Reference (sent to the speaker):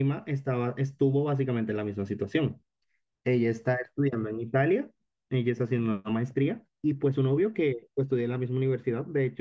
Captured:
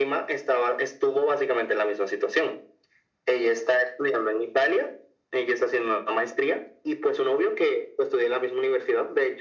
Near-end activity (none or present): none